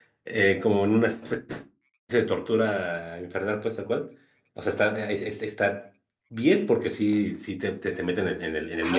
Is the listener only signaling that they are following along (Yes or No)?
No